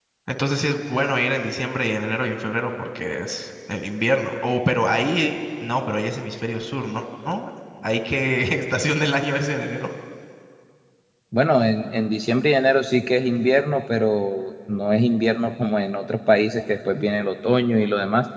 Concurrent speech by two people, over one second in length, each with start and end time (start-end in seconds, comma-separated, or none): none